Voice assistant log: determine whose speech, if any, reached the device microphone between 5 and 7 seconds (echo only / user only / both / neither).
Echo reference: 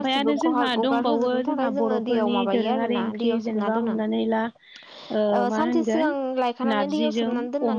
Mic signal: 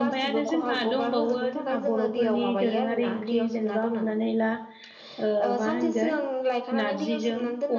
echo only